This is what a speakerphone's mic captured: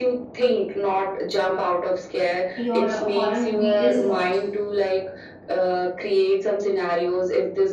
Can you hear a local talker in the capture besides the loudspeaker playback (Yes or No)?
Yes